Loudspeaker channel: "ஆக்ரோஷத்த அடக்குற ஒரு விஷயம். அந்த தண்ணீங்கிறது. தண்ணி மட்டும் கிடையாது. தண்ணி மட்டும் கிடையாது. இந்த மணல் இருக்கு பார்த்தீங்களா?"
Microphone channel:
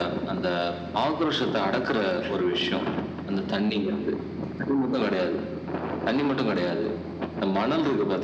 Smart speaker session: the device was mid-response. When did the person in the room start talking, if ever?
none

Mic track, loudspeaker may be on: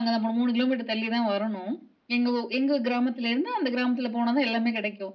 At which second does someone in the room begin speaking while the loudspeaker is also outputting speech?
none

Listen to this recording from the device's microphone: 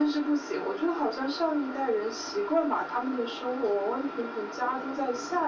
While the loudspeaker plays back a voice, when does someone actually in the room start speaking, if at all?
none

